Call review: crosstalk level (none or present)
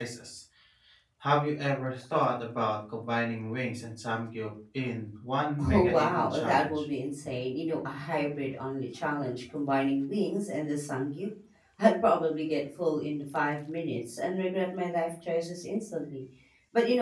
present